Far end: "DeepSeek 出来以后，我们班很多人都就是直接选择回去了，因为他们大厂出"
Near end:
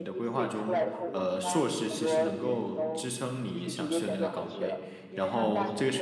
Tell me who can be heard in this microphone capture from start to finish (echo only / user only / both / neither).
both